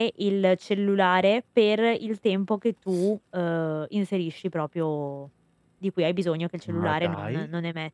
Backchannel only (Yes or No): Yes